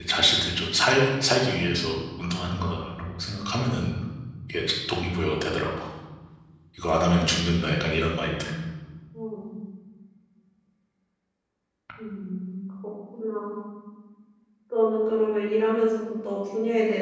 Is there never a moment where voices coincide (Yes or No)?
Yes